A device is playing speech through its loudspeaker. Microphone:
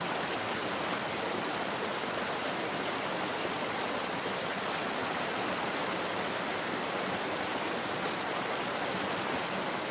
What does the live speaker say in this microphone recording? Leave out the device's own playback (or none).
none